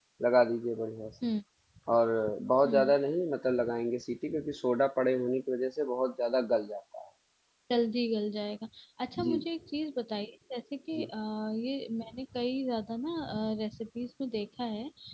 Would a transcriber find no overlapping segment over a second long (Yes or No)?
Yes